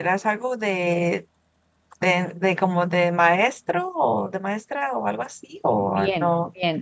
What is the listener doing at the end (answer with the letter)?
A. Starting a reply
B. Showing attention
A